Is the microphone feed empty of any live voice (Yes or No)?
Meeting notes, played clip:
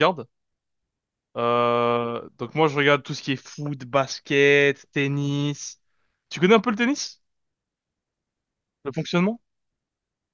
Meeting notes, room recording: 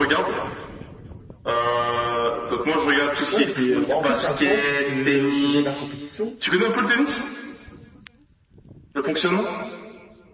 No